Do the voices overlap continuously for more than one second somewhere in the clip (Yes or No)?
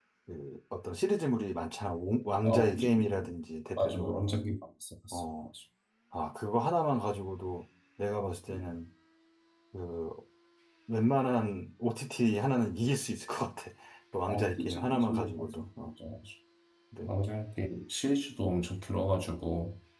Yes